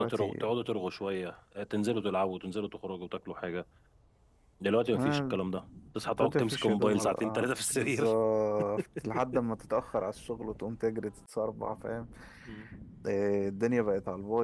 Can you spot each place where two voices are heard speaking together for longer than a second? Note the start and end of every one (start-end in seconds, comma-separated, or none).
6.2-8.1